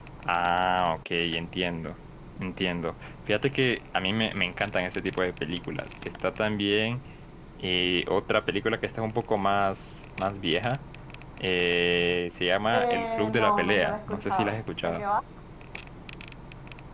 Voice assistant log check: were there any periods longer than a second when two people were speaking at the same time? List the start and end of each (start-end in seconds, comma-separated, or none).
12.7-15.0